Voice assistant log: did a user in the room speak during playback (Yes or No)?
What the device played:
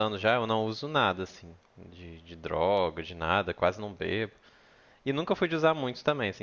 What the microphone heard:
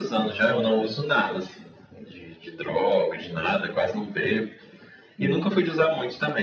Yes